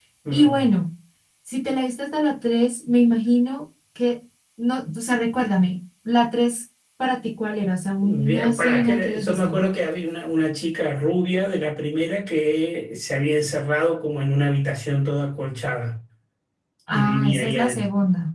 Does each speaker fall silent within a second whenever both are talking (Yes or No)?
No